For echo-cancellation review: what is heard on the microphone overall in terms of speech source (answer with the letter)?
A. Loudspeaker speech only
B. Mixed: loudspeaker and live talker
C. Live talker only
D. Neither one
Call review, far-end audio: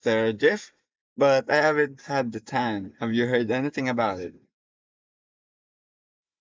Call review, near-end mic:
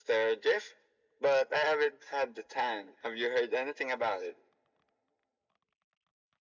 A